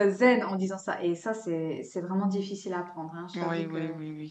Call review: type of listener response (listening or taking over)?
taking over